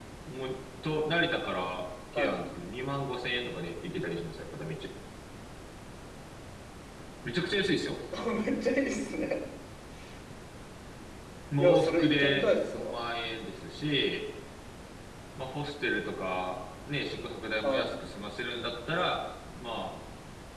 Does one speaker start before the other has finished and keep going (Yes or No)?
Yes